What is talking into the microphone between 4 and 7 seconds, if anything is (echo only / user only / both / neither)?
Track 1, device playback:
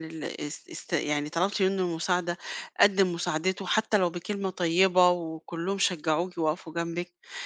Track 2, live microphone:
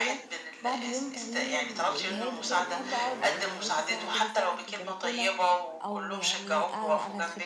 both